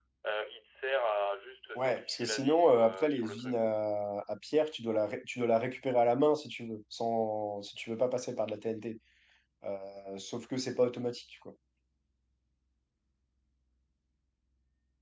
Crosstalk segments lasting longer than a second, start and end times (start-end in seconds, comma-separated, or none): 1.8-3.6